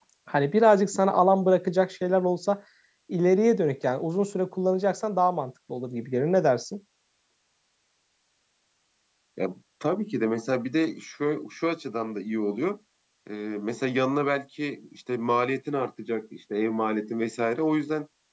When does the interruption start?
none

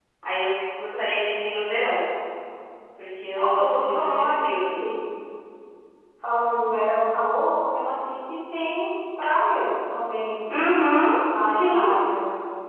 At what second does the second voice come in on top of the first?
3.4 s

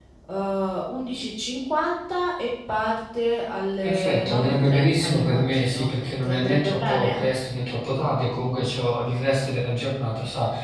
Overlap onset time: 3.8 s

